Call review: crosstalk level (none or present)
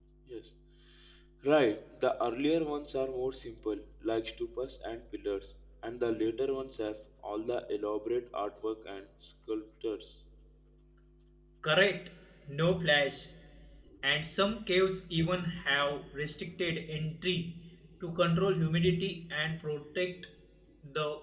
none